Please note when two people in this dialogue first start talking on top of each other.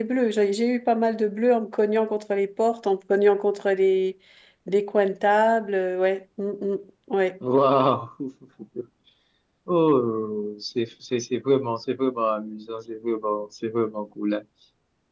none

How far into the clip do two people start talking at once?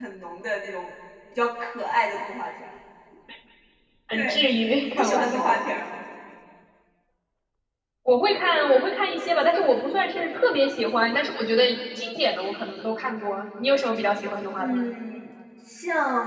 4 s

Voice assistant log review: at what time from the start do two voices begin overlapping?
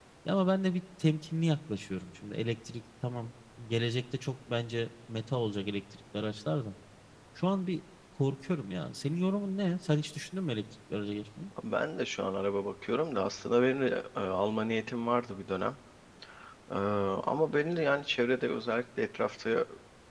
none

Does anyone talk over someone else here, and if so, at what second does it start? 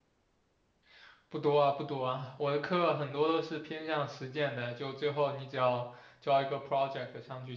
none

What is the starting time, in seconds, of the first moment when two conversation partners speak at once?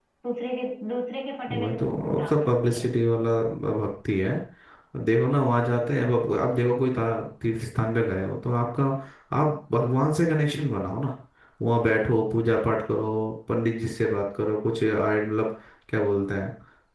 1 s

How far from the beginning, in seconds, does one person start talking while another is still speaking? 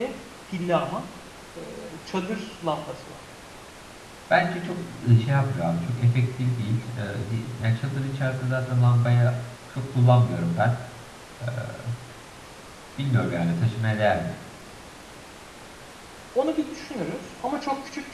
none

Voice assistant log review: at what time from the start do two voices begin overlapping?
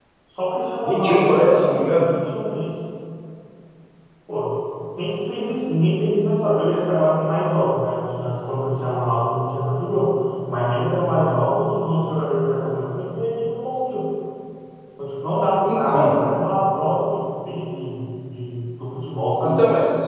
1 s

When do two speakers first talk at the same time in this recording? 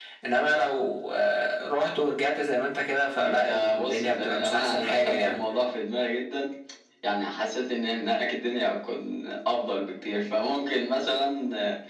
3 s

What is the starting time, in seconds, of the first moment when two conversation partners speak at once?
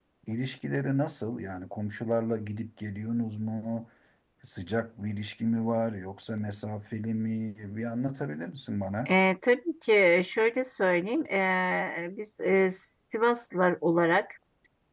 none

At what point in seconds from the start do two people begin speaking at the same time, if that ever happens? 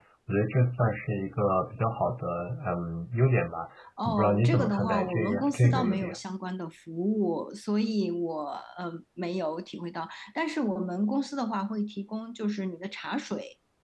4 s

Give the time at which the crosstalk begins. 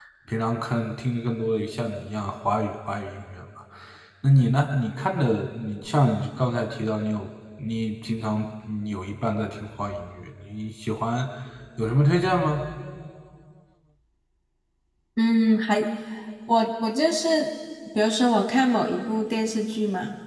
none

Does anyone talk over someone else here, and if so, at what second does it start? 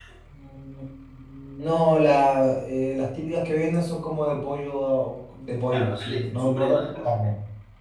6 s

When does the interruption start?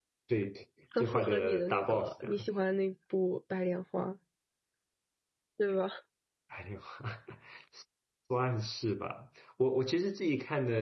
1 s

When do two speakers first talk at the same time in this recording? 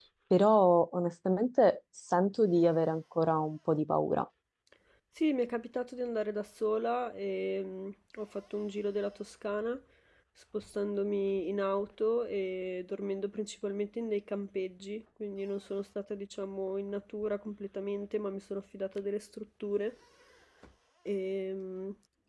none

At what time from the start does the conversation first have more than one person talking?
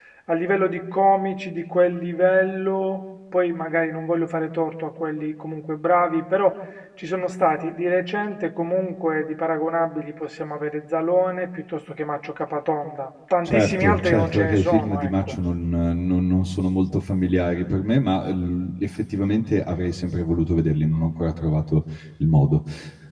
13 s

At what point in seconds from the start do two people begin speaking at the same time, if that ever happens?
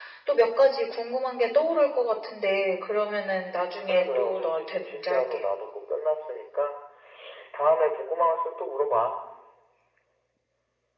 4 s

